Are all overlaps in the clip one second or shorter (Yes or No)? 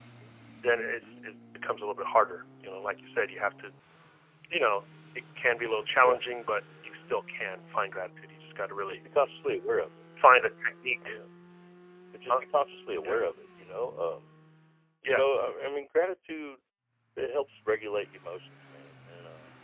Yes